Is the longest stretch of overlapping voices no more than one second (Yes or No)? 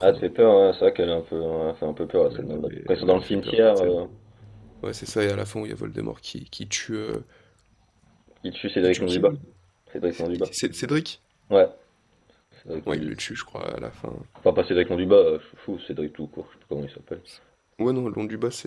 No